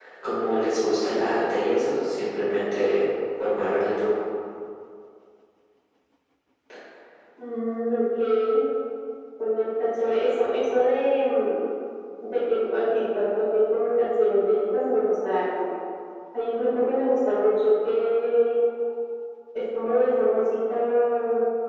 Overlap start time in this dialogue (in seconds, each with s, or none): none